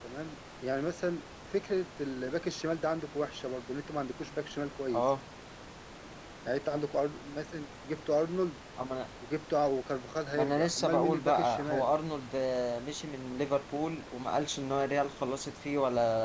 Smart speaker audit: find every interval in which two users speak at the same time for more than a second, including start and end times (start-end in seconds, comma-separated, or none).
10.4-11.9